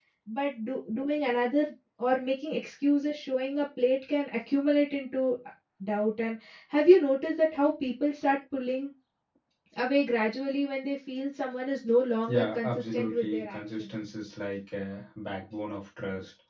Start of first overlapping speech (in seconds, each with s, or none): 12.3 s